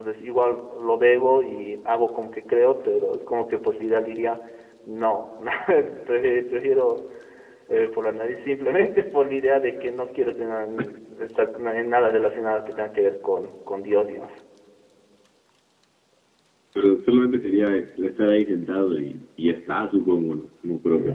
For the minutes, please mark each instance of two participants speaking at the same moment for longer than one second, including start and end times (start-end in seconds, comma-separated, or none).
none